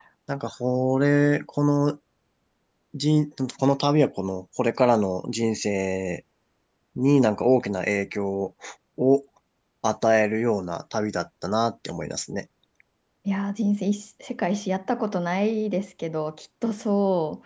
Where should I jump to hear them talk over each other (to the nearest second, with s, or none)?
none